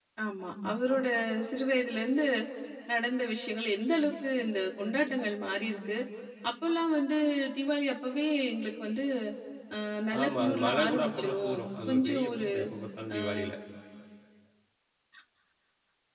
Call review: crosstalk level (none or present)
present